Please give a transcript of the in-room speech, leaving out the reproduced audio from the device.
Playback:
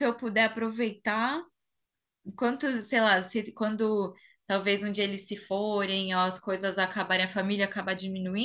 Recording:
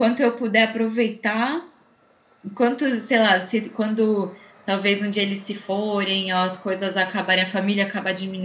none

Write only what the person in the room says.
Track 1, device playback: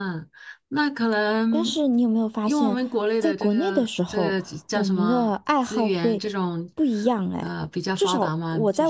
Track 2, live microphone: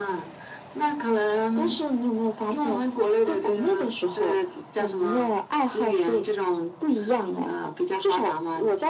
none

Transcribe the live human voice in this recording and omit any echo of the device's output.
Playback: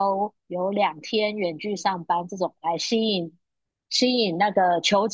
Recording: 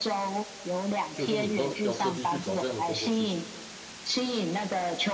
所以说你说要特地去找这样的工作，其实

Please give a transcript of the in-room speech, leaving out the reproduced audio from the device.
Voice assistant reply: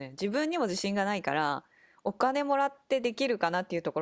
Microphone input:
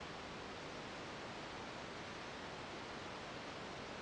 none

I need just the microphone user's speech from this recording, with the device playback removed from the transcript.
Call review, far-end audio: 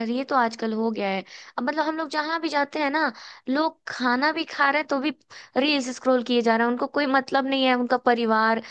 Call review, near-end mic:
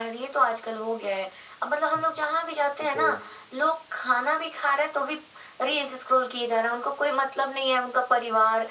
हम्म। ये तो

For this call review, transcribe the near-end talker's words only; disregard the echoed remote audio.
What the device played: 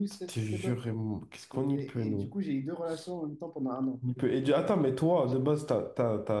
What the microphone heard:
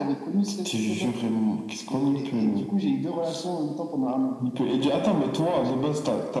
none

